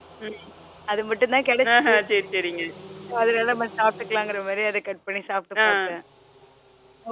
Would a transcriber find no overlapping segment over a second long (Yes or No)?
Yes